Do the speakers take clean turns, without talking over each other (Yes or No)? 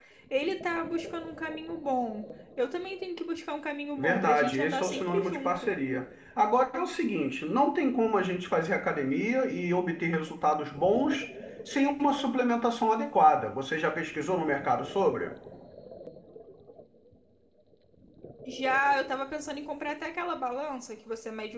No